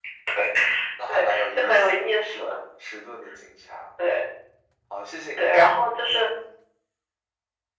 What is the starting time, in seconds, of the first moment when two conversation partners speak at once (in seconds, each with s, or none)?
1.1 s